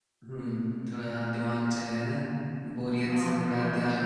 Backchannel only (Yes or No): No